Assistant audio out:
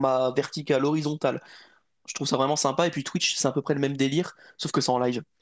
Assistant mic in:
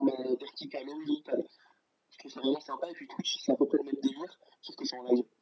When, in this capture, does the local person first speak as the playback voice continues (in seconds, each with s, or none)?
none